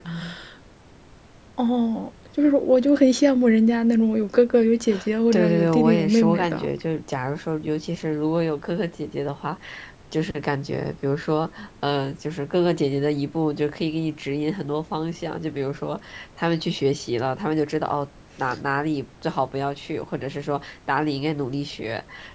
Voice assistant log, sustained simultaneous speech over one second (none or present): present